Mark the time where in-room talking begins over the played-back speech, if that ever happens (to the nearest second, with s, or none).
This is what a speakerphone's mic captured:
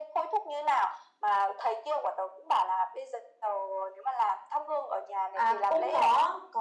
5 s